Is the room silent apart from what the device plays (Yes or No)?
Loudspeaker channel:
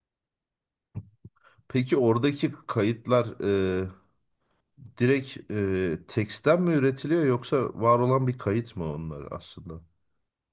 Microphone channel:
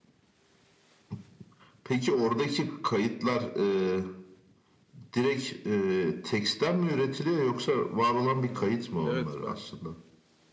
No